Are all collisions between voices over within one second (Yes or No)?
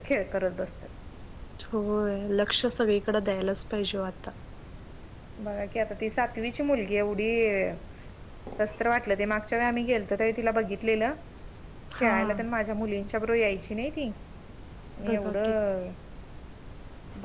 Yes